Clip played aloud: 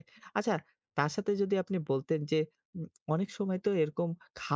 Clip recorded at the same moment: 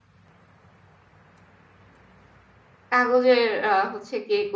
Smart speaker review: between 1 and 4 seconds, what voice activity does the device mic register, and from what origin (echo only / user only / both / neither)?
user only